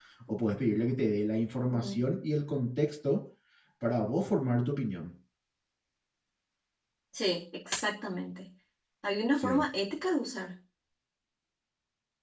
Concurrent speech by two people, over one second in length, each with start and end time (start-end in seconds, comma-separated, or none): none